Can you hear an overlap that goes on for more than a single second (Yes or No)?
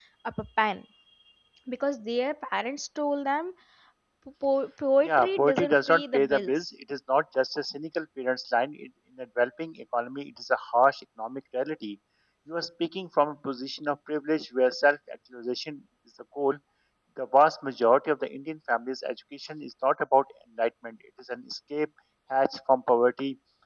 Yes